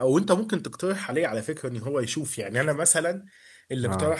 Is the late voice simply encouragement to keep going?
Yes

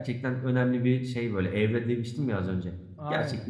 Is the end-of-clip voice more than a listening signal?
Yes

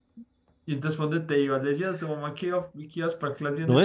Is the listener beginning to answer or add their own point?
Yes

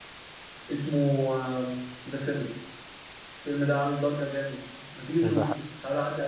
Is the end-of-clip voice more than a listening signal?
No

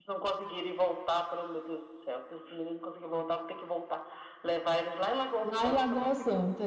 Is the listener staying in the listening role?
No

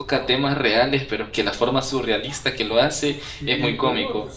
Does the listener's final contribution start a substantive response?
Yes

